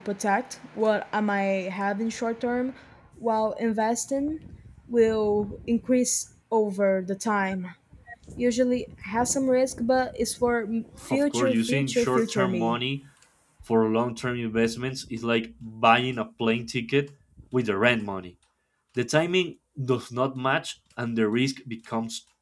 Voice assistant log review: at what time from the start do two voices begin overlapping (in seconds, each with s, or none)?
11.1 s